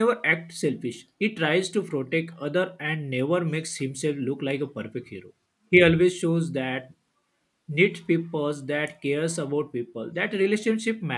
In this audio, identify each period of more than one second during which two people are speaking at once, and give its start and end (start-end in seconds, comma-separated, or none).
none